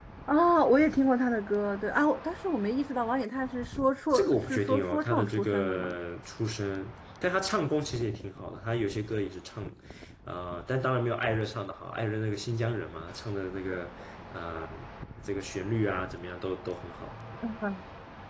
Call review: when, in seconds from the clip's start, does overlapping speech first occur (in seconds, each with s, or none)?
4.1 s